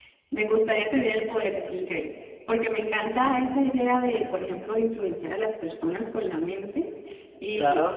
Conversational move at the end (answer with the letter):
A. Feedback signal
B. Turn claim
A